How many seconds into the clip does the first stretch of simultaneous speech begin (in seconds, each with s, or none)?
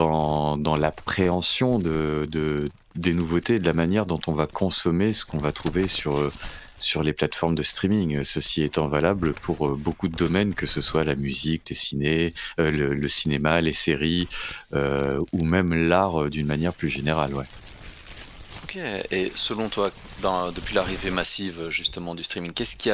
none